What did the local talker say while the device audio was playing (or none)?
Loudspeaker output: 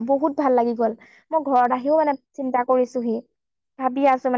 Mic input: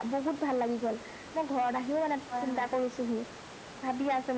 হয়, হয়।